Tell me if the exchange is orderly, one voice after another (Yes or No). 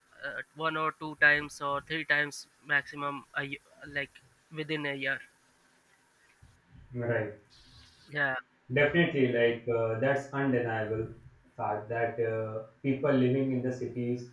Yes